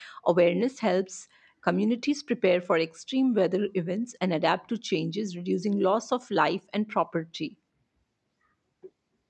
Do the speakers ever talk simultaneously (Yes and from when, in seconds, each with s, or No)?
No